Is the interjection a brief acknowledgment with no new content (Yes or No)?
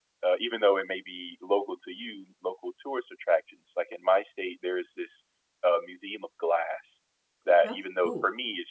Yes